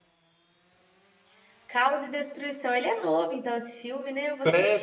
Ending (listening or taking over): taking over